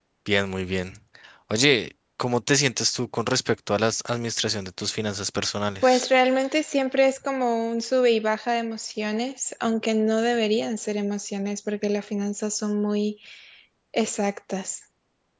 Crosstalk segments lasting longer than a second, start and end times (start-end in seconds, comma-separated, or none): none